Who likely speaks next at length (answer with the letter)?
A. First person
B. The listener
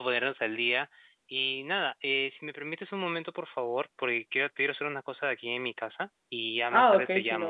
B